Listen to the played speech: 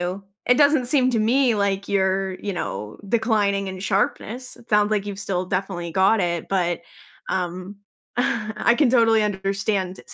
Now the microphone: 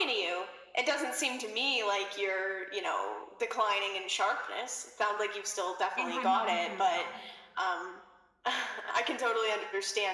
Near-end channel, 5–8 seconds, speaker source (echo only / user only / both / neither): both